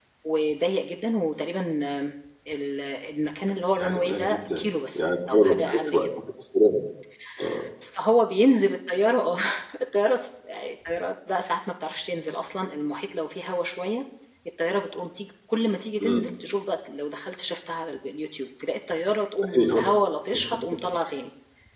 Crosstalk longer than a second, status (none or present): present